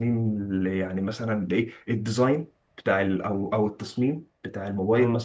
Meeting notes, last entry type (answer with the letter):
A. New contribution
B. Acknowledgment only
B